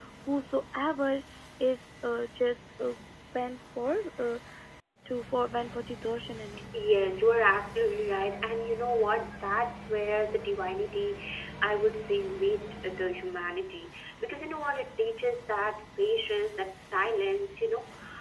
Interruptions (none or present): none